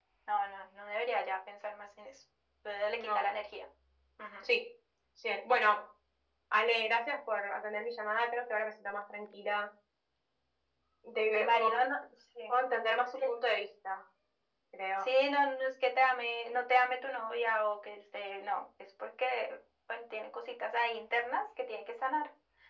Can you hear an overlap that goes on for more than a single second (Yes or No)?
No